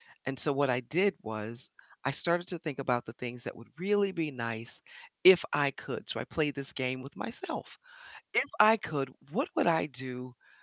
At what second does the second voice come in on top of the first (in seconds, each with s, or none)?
none